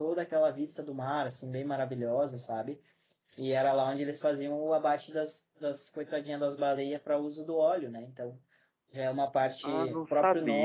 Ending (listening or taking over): taking over